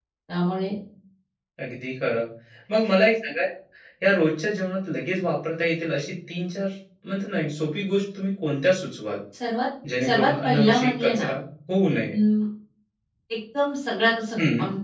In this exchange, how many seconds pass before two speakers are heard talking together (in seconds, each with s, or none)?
10.0 s